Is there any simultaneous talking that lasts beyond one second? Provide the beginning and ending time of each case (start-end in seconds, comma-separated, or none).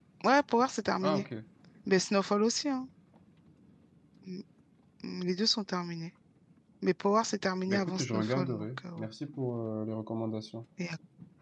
7.7-9.1